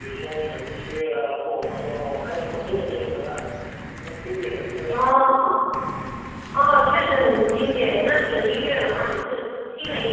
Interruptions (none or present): none